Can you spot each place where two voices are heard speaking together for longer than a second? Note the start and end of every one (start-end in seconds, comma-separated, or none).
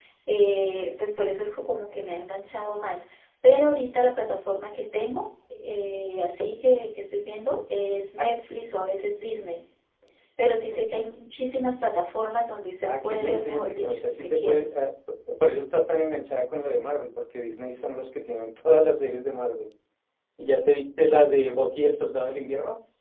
12.8-14.6